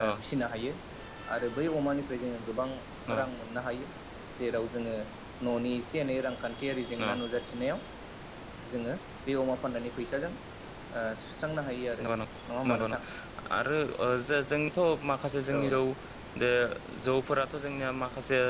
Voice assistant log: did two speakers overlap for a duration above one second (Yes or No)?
No